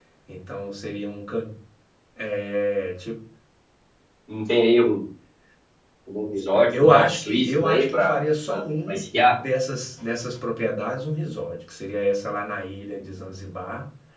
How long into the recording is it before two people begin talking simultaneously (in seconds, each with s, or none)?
6.7 s